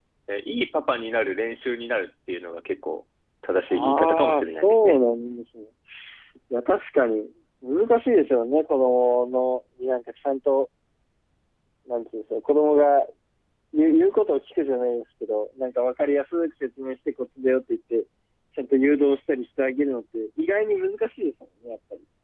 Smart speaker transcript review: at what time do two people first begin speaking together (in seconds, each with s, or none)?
3.7 s